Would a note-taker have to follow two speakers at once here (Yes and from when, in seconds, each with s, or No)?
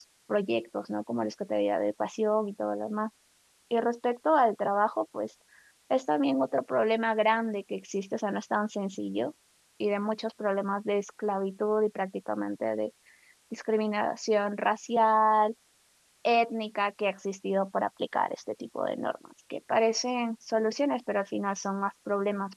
No